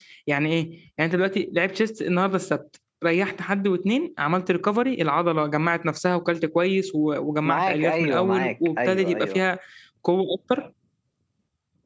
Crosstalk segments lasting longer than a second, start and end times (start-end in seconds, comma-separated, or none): 7.4-9.4